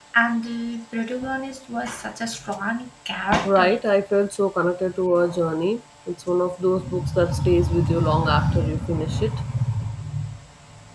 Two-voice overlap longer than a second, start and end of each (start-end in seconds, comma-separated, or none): none